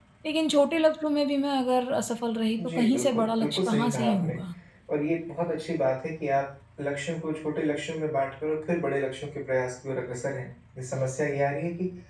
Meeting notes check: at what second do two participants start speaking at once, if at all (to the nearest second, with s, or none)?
3 s